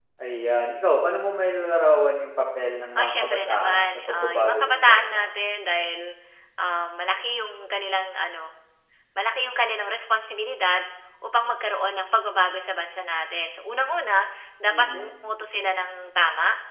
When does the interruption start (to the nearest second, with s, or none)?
3 s